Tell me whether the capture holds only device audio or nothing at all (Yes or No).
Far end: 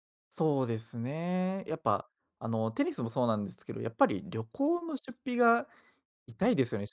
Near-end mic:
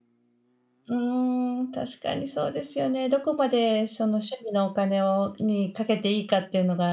No